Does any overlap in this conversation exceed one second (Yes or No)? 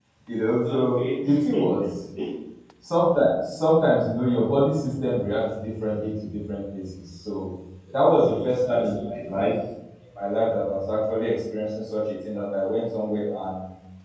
Yes